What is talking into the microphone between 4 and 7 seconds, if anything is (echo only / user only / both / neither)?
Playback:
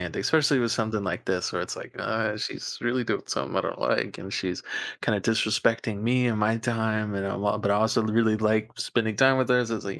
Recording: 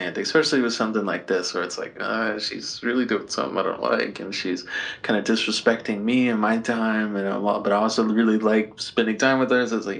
echo only